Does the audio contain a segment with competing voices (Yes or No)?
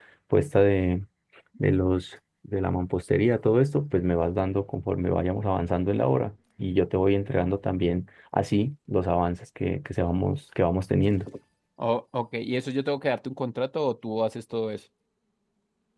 No